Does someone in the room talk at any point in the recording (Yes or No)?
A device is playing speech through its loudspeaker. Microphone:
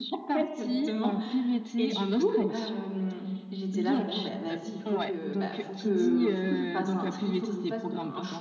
Yes